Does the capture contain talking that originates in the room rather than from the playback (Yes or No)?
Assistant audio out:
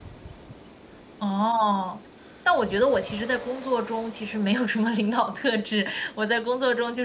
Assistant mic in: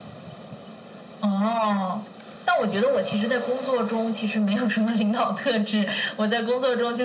No